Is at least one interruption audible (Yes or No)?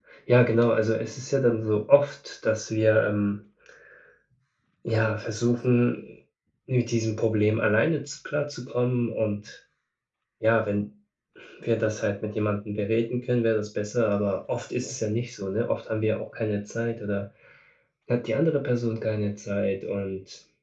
No